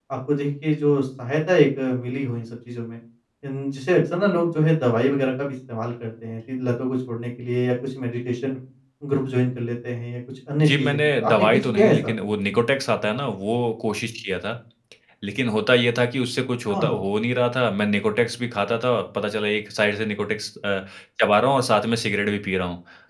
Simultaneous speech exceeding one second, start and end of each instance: 10.6-12.1

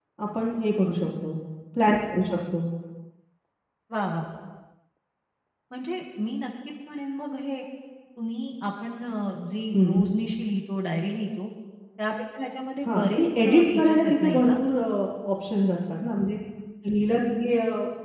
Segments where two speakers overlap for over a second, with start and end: 12.8-14.5

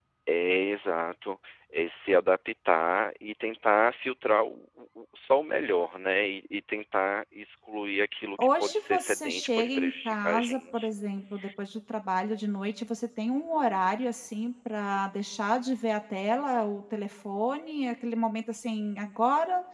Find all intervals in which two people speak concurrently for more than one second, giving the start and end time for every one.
8.4-10.9

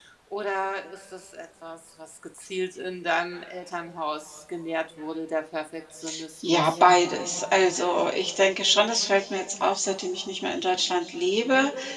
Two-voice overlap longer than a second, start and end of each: none

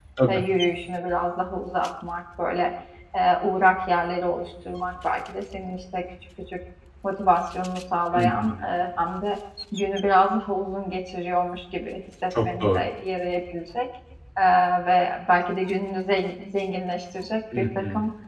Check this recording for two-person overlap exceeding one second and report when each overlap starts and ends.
none

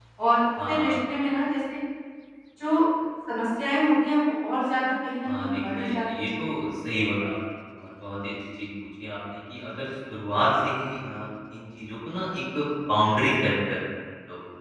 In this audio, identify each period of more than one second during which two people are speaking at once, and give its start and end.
5.2-6.5

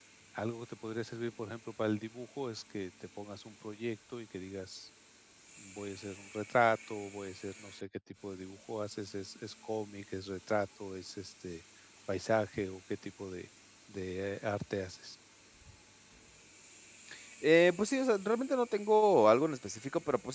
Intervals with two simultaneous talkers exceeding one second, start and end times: none

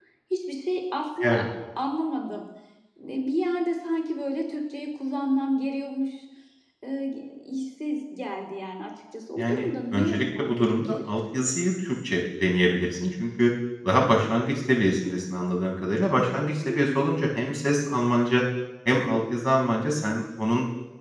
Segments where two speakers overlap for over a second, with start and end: 9.4-11.0

